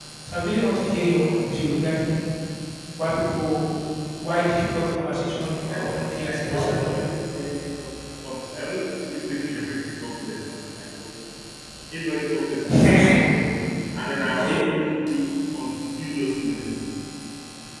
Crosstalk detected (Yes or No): Yes